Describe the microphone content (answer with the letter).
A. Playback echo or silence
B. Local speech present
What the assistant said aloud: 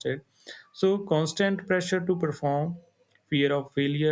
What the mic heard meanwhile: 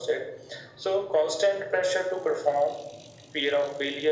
A